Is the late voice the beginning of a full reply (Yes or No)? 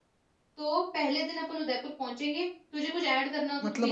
Yes